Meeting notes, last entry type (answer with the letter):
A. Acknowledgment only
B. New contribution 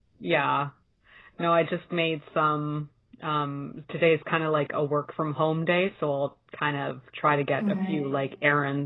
A